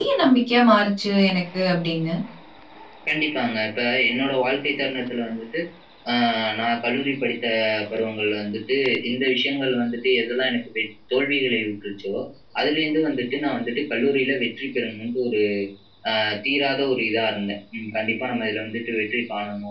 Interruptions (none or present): none